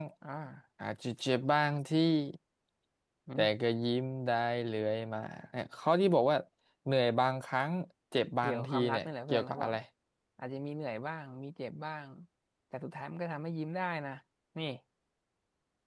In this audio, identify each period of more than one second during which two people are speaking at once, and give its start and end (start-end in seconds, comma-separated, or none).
8.4-9.7